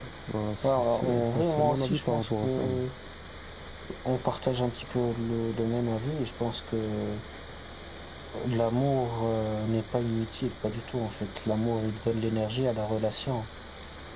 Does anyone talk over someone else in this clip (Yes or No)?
Yes